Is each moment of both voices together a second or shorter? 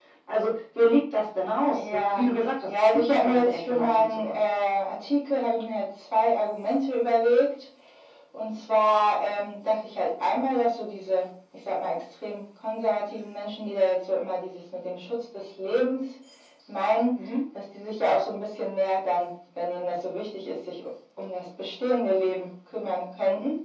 No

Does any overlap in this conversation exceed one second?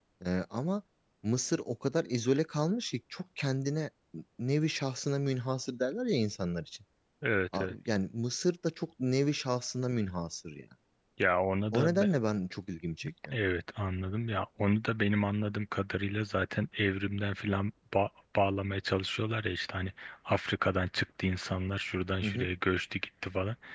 No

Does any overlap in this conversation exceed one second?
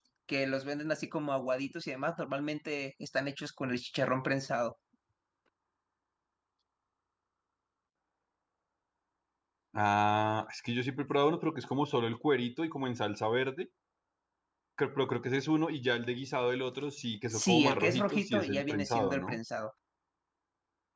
Yes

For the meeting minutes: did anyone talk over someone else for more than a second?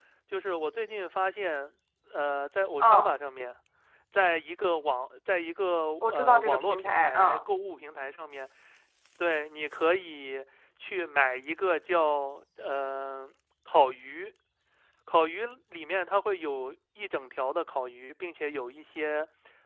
Yes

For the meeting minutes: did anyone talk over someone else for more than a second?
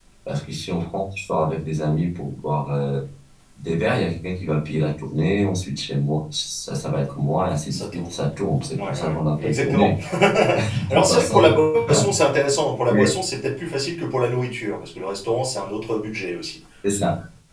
Yes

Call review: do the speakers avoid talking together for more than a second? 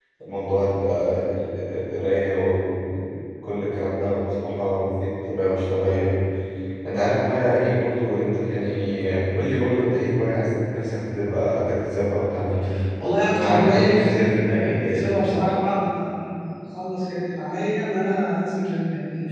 No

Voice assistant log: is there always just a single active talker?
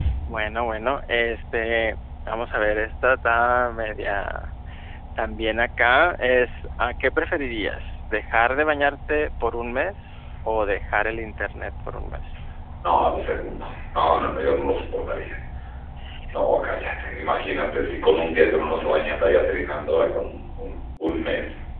Yes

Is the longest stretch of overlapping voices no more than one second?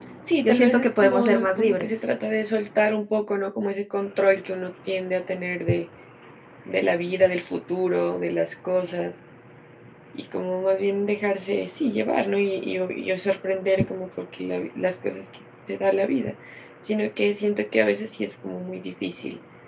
No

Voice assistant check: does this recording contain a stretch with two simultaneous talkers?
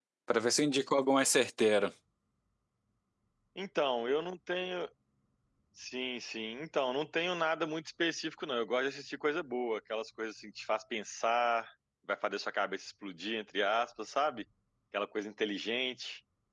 No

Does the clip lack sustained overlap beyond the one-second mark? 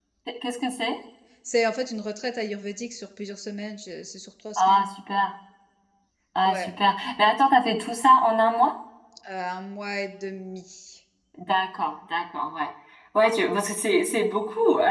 Yes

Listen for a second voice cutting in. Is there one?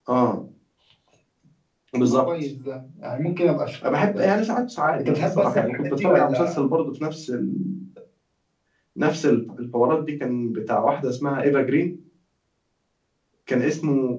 Yes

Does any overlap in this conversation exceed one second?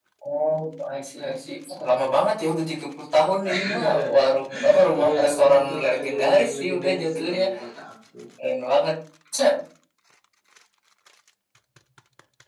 Yes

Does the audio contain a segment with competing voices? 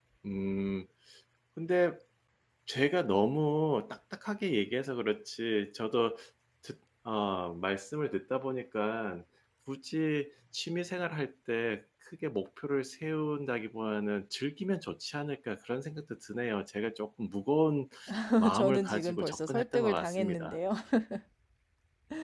Yes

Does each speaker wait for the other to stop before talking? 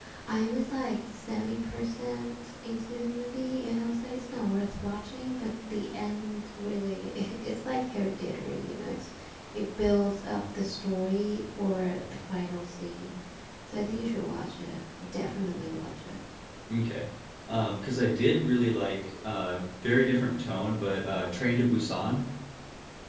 Yes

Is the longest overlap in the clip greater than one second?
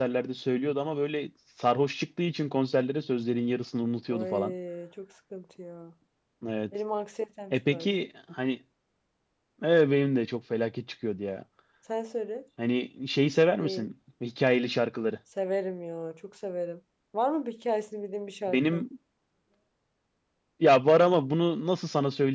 No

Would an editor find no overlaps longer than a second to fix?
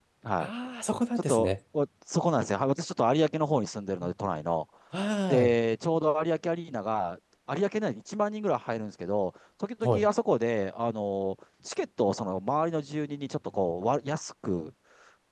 Yes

